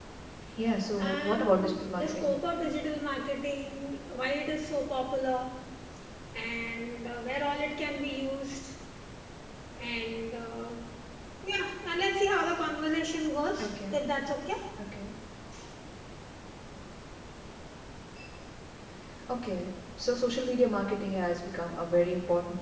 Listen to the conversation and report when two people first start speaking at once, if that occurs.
1.0 s

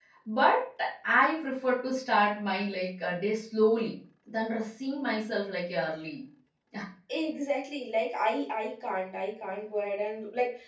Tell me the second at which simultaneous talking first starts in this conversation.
none

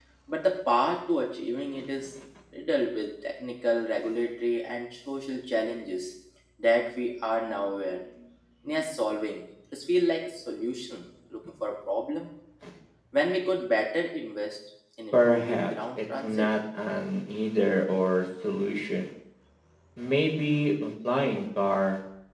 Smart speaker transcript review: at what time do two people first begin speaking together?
15.1 s

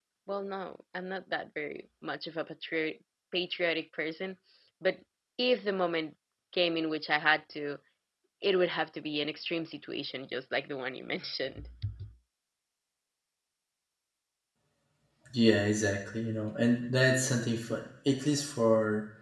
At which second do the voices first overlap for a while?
none

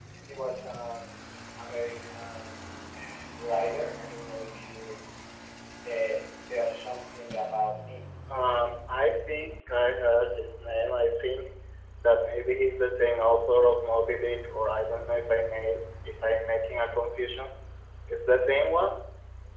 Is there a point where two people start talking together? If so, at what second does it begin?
none

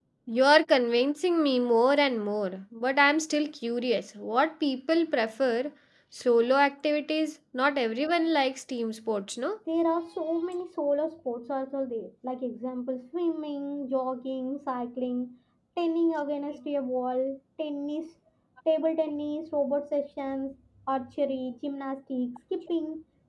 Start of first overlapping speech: none

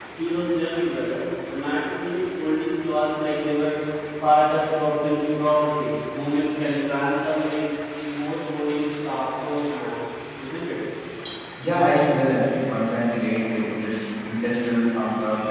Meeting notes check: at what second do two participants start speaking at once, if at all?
none

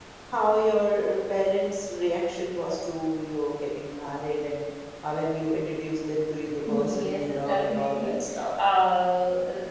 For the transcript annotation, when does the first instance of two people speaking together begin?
6.7 s

